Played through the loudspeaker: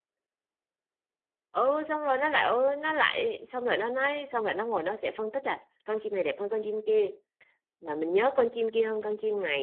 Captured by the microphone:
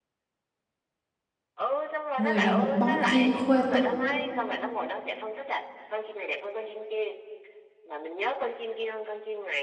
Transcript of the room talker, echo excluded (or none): Người là một bóng chim khuê tú.